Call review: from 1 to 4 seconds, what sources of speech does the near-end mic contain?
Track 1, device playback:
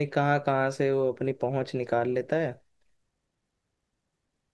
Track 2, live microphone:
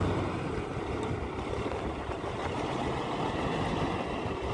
neither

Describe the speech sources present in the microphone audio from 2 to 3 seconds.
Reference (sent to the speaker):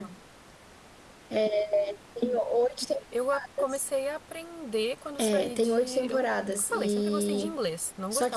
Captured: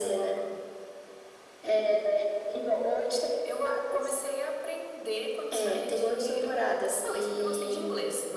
echo only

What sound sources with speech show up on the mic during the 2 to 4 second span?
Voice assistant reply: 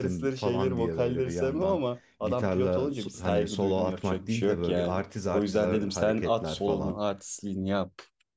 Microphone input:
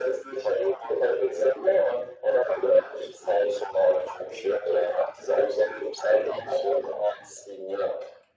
echo only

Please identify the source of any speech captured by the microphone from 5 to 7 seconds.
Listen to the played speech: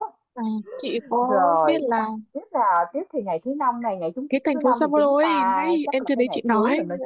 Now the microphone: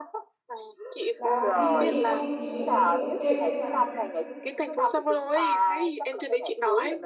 echo only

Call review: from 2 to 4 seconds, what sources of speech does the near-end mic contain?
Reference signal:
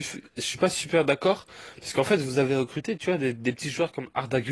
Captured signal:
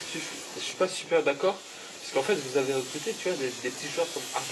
echo only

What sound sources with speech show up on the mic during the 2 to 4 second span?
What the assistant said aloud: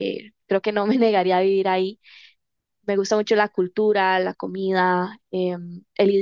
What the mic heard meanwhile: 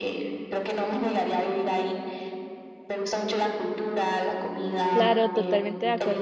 echo only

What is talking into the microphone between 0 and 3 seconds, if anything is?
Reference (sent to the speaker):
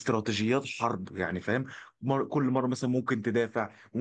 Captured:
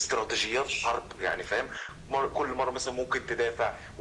echo only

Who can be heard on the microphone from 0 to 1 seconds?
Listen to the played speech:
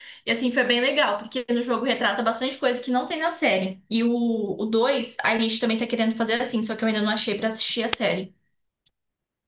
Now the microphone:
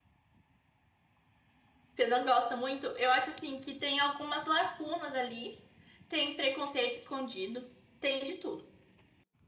neither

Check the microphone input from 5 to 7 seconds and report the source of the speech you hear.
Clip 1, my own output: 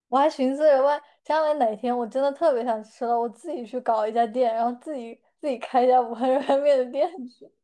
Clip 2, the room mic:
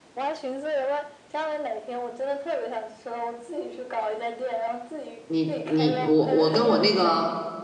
both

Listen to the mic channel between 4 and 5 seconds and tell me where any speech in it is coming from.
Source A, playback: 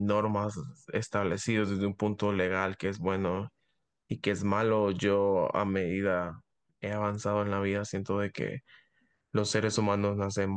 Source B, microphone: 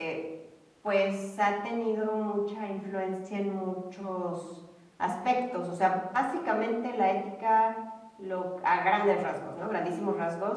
user only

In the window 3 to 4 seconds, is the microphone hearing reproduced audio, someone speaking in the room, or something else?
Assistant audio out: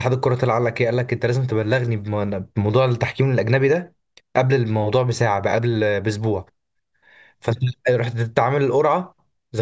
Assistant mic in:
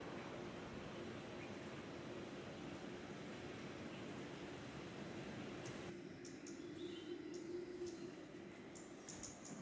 neither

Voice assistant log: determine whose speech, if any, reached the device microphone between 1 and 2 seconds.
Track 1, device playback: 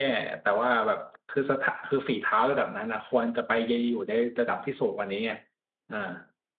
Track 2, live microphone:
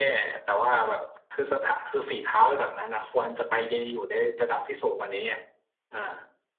echo only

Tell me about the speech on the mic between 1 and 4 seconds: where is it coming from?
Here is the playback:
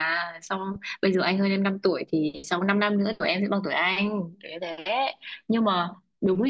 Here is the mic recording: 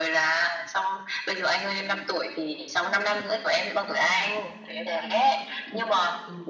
both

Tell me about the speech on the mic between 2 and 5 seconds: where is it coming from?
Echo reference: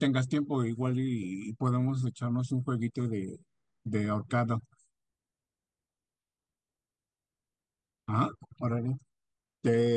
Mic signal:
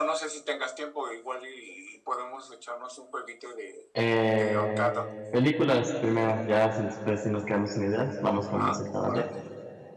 both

